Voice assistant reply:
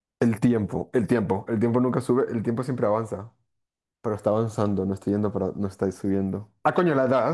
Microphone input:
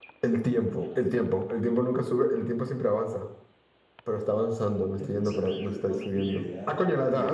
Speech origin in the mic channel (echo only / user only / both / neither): both